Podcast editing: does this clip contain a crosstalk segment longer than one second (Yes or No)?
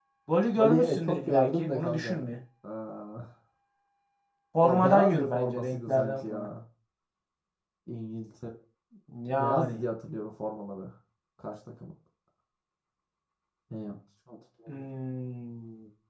Yes